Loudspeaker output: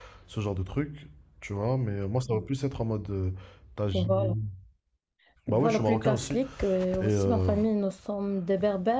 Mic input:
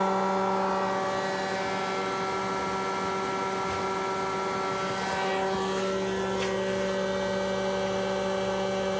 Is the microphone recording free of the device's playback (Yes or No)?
Yes